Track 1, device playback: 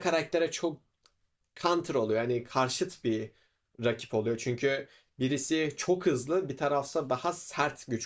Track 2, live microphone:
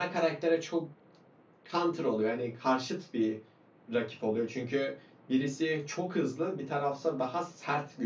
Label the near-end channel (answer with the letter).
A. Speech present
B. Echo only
B